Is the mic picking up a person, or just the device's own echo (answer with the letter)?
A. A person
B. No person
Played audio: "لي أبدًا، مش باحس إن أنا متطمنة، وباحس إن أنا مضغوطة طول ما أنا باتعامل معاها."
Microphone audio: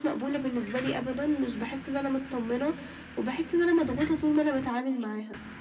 B